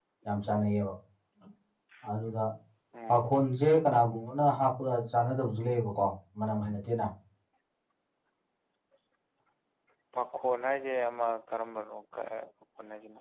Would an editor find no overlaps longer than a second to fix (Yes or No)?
Yes